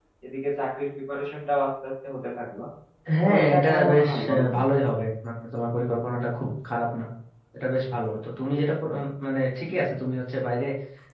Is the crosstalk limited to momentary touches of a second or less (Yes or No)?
No